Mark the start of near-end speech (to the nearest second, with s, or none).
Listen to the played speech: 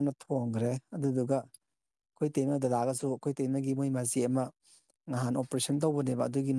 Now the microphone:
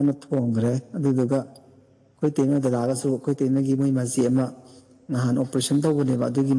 none